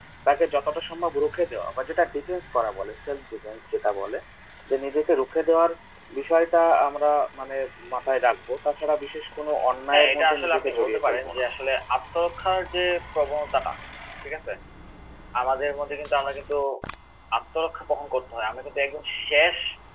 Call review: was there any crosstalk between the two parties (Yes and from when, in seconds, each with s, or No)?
Yes, from 9.9 s